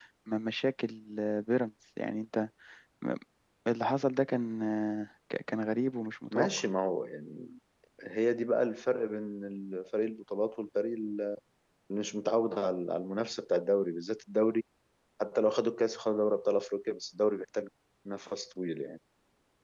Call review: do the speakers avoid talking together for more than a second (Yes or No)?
Yes